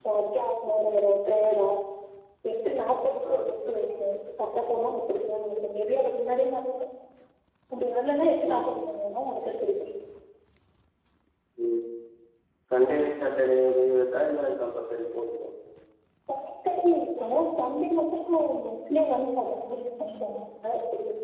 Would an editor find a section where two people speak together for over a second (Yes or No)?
No